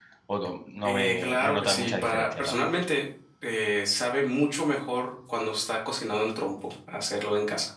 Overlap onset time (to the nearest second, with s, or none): 1 s